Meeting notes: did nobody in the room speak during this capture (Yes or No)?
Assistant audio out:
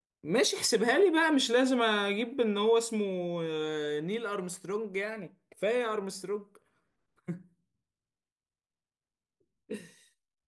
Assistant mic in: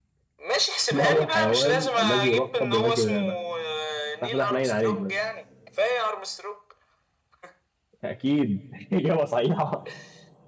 No